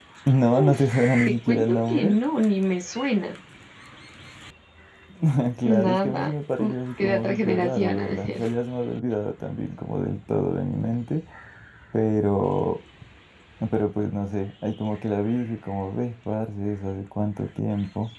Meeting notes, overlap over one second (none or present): present